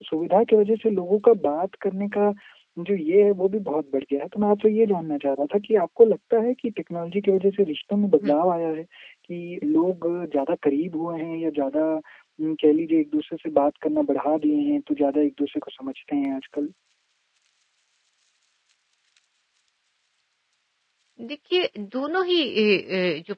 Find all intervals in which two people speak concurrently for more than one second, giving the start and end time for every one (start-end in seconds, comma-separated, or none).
none